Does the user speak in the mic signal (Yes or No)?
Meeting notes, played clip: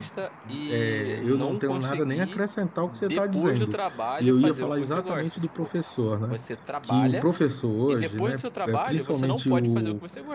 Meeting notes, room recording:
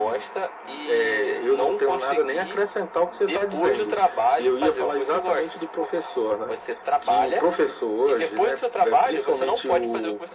No